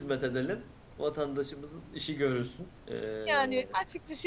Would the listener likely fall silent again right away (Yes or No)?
No